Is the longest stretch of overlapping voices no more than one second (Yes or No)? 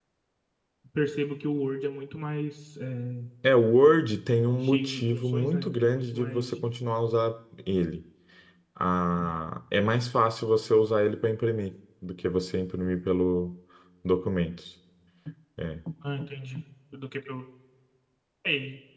No